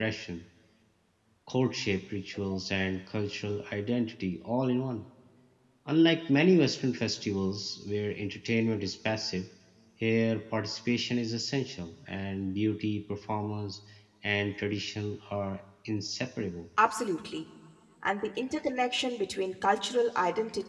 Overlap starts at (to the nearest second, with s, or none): none